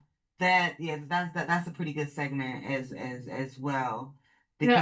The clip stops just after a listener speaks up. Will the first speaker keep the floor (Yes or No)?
No